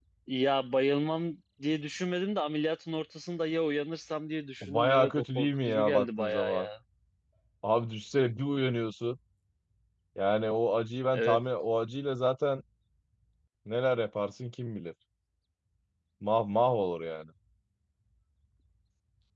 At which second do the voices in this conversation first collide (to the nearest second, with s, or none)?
5 s